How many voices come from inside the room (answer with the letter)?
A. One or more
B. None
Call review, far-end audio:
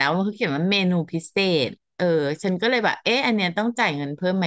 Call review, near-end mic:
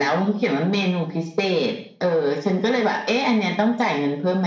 B